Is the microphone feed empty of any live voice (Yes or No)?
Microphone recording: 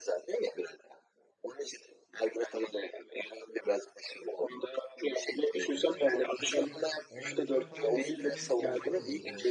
No